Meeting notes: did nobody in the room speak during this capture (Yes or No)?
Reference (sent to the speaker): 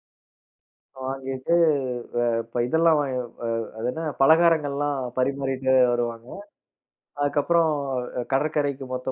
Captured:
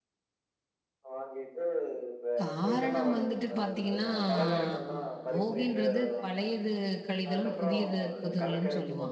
No